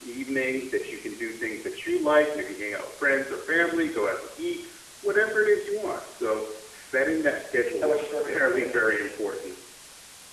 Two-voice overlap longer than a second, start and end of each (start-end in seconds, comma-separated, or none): 7.8-9.5